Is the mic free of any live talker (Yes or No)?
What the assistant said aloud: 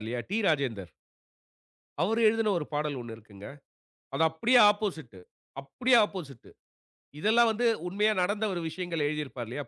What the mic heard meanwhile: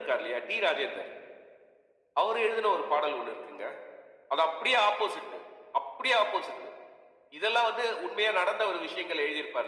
Yes